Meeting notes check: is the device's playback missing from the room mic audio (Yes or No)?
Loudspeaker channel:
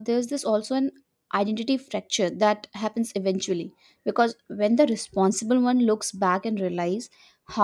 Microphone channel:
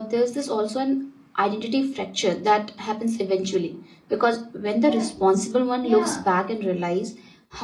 No